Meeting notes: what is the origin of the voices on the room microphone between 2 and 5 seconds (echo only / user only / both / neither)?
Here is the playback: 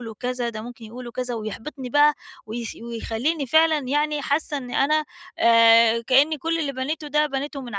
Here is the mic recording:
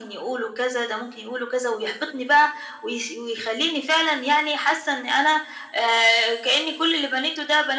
echo only